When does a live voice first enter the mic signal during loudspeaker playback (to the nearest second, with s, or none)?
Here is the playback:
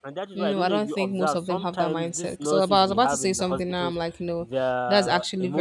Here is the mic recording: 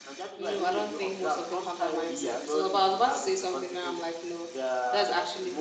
2 s